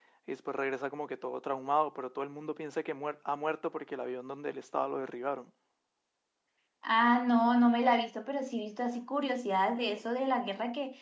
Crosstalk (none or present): none